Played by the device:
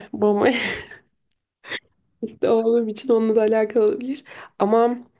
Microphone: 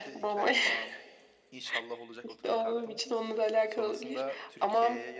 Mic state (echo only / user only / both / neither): both